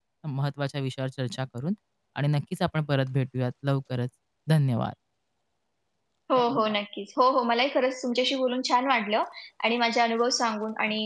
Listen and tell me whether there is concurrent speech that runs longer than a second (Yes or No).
No